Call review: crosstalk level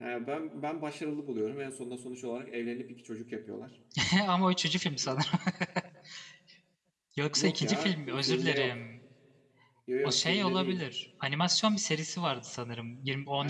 present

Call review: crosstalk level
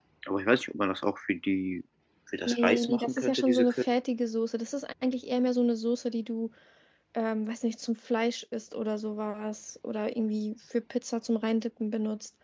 present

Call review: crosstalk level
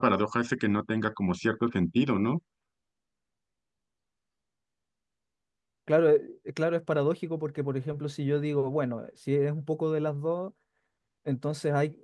none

